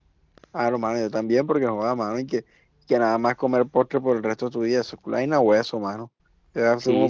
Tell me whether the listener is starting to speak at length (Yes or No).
No